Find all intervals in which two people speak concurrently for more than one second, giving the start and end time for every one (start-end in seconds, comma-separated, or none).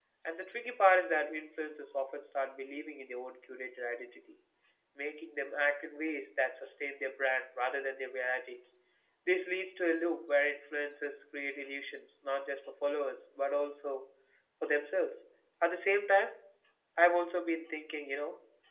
none